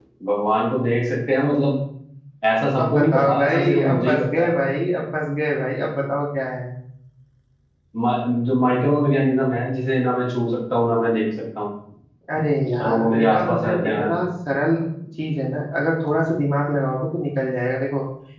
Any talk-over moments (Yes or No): Yes